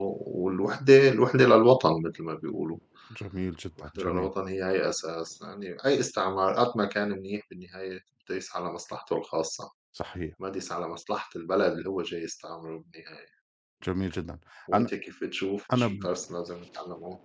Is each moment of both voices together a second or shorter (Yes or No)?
Yes